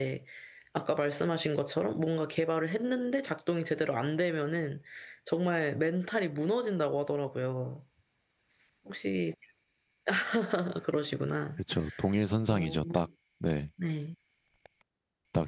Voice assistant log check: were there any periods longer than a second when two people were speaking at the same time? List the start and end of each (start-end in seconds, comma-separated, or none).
none